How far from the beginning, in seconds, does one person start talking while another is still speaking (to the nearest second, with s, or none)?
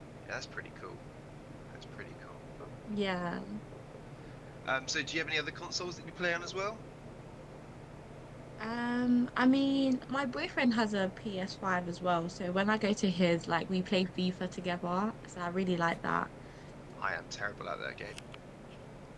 none